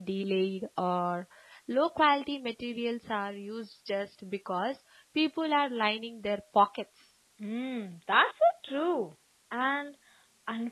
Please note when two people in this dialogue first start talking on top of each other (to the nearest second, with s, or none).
none